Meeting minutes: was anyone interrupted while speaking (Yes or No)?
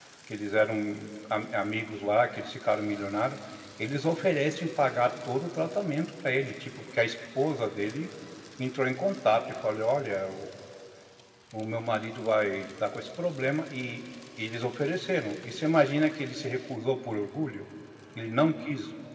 No